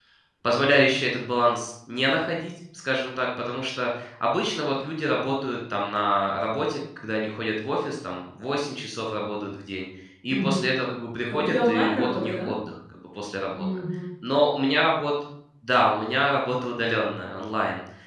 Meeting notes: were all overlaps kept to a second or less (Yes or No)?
No